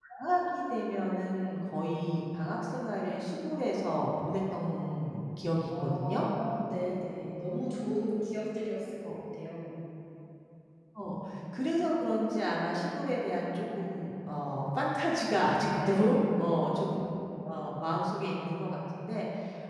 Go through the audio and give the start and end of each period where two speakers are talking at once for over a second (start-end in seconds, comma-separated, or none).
none